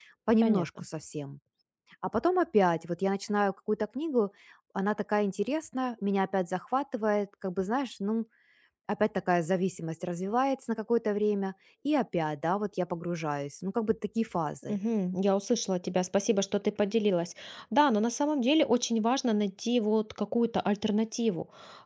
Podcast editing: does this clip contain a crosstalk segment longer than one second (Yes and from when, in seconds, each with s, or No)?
No